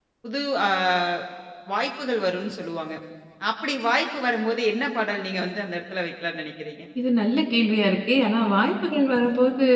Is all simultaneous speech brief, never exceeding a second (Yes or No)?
Yes